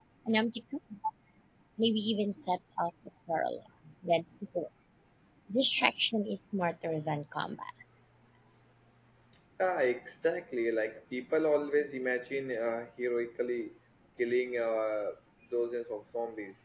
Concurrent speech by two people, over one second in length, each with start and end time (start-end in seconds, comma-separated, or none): none